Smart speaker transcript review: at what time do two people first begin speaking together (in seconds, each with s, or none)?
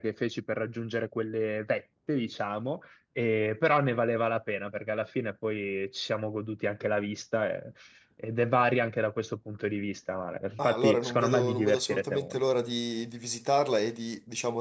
10.6 s